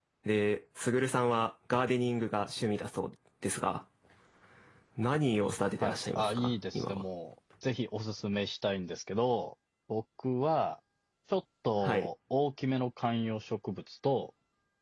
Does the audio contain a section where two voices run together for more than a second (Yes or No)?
Yes